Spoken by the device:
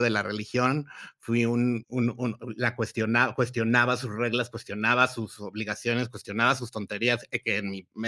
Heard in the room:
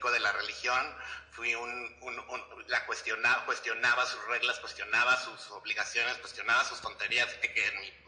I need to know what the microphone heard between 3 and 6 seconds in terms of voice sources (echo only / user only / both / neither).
echo only